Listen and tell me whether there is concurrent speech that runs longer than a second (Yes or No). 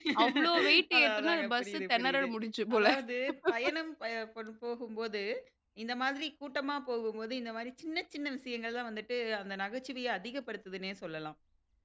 Yes